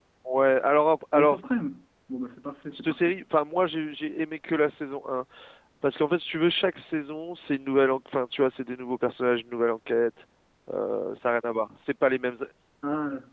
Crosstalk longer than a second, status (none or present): none